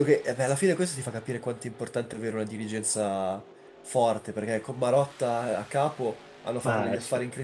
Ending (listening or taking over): listening